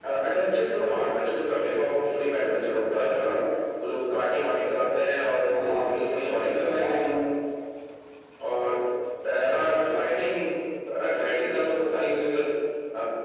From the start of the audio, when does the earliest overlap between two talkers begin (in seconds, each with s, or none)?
5.4 s